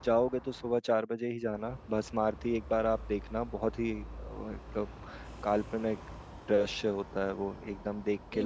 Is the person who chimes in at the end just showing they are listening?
No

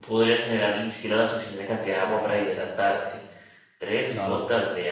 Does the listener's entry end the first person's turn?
No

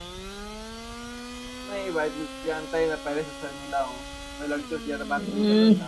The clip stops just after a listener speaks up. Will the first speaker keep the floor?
No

